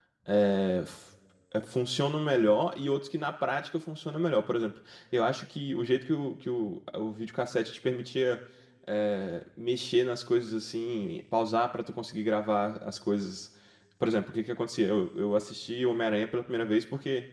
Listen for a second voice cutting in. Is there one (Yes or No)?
No